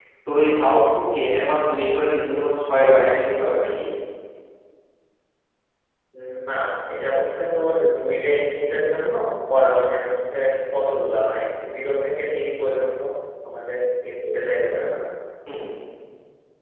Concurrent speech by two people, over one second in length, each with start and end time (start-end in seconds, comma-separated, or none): none